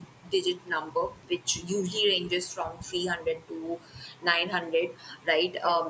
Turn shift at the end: No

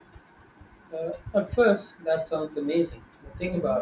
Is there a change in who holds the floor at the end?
No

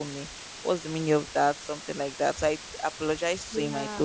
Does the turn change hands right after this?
No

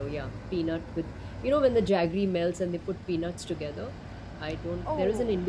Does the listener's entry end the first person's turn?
No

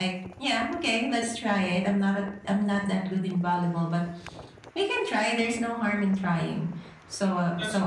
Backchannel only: Yes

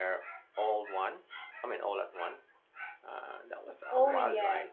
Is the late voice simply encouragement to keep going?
No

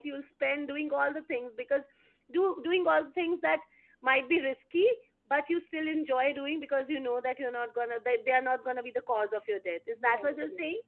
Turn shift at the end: Yes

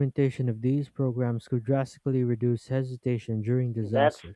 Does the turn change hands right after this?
Yes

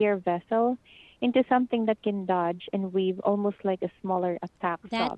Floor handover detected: Yes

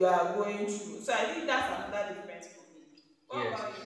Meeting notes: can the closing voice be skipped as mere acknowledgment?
No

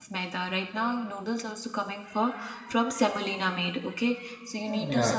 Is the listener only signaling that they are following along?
Yes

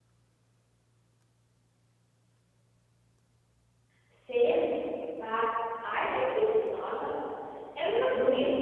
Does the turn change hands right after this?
Yes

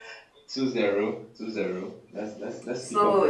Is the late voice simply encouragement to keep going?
No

